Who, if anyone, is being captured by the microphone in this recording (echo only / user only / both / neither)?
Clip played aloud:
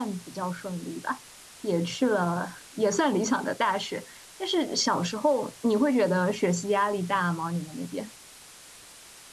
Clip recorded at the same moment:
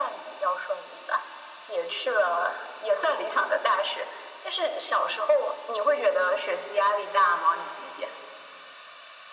echo only